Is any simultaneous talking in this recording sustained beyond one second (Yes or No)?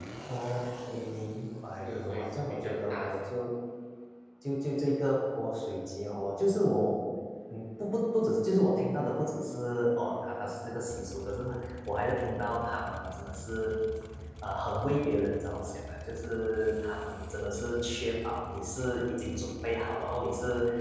Yes